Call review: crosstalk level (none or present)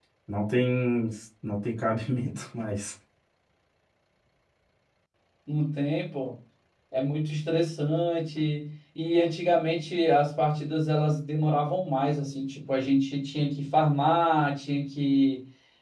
none